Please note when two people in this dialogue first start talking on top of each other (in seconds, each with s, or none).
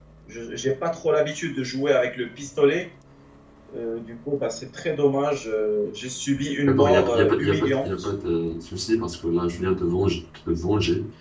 6.7 s